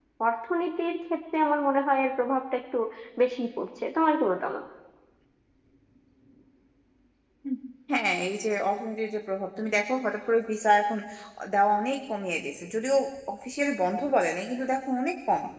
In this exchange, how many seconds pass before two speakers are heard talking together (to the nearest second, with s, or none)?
none